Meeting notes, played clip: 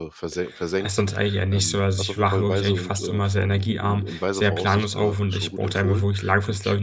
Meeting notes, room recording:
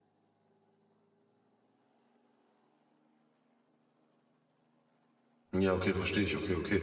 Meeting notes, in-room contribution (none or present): present